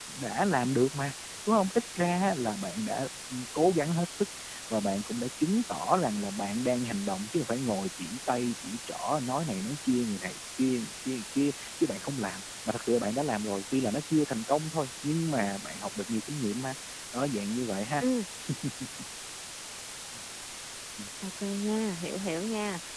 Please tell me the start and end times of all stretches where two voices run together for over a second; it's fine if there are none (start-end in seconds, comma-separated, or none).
none